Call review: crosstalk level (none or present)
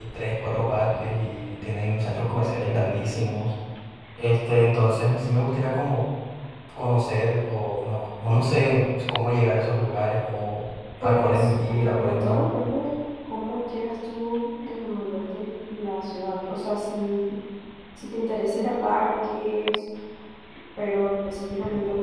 present